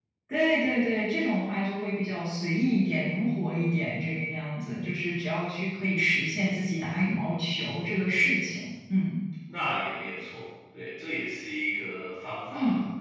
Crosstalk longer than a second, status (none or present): none